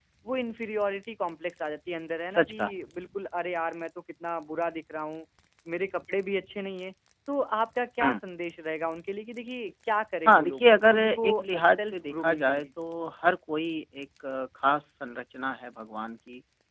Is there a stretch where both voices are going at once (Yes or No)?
Yes